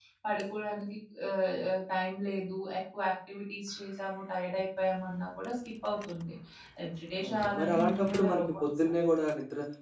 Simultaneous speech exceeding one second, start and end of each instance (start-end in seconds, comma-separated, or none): 7.3-8.9